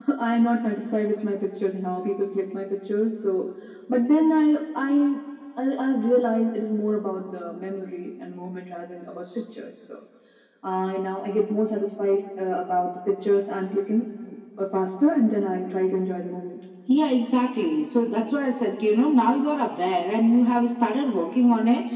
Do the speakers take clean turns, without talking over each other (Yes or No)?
Yes